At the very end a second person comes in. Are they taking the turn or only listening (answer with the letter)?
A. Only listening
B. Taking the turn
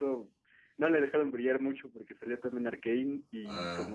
A